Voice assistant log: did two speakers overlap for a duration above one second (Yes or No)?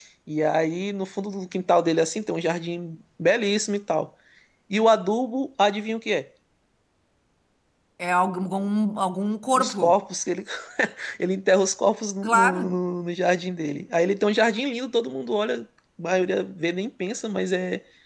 No